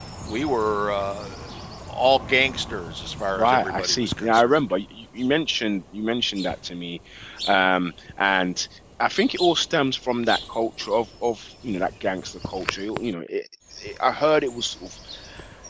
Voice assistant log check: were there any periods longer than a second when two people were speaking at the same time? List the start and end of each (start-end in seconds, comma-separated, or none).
3.3-4.6